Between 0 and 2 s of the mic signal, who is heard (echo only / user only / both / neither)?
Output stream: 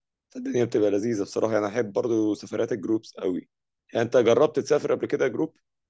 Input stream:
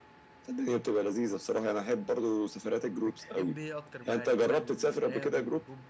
echo only